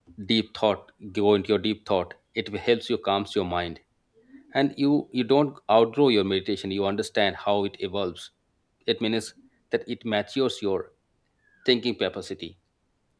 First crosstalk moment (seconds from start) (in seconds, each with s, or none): none